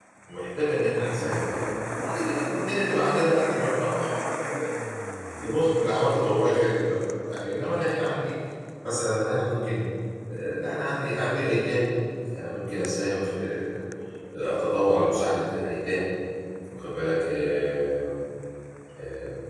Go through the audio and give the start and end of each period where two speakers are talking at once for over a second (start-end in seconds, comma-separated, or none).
none